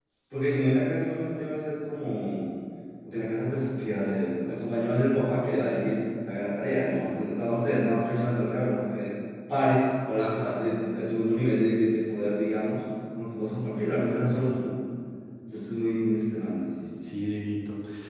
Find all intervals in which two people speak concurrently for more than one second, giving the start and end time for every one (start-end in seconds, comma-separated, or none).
none